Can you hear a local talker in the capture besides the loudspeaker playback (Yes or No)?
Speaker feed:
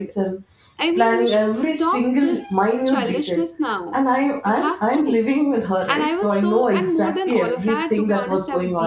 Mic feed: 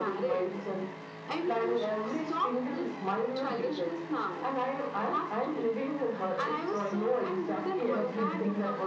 Yes